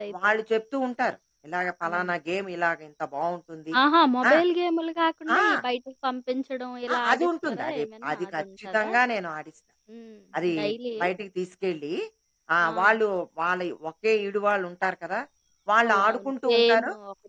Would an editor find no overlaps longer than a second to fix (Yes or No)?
No